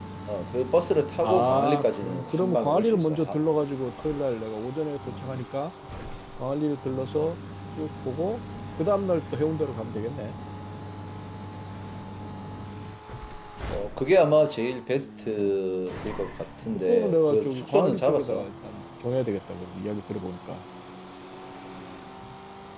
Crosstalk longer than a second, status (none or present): present